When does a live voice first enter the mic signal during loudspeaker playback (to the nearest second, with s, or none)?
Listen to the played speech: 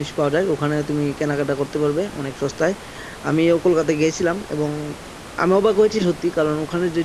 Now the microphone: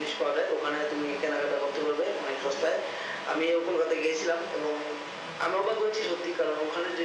none